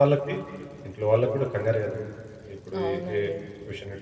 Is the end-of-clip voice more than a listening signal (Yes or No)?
No